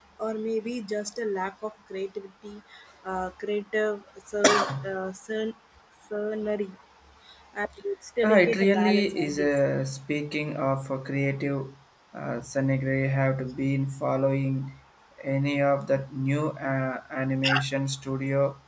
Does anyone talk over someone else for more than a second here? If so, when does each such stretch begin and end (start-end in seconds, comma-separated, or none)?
8.2-9.6